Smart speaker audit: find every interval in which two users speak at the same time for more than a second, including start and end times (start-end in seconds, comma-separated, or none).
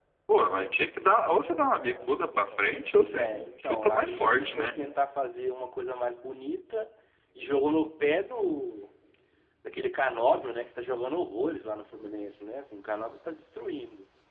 2.9-4.7